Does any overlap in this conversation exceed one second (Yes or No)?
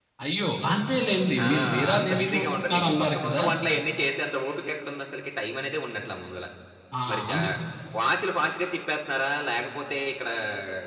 Yes